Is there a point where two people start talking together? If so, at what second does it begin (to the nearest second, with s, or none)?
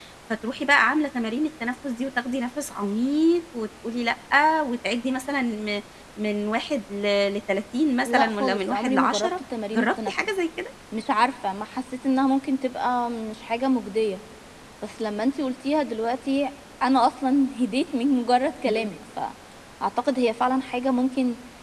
8 s